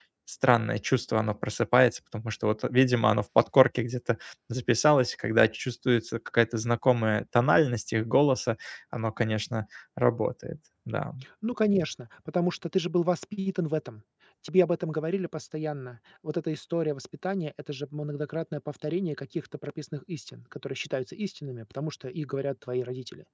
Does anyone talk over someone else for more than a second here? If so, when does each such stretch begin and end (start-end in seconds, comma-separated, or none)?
none